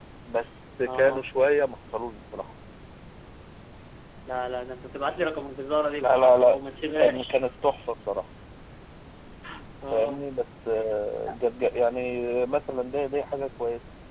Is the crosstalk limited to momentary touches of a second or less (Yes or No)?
No